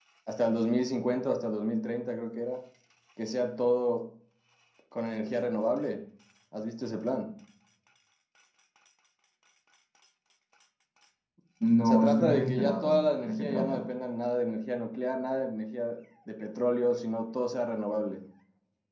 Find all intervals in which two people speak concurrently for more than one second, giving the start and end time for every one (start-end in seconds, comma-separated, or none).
11.8-13.9